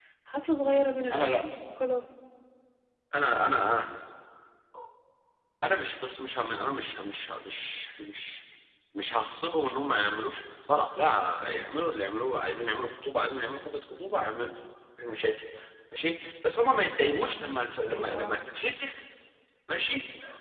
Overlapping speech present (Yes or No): Yes